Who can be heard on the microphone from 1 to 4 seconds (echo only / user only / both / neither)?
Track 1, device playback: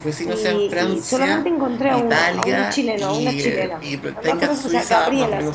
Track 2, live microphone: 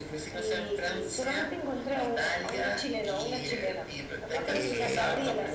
echo only